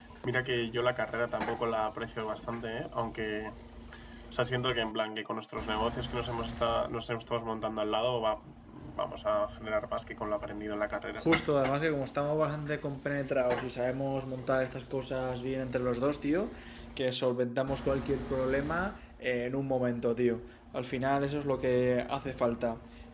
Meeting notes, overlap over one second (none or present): none